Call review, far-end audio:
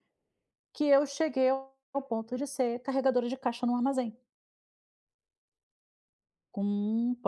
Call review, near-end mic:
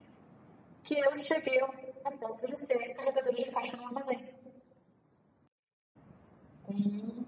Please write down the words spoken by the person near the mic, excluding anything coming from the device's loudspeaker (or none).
none